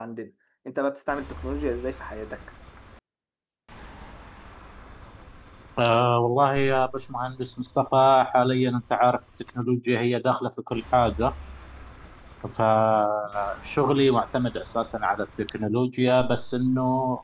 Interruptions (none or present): none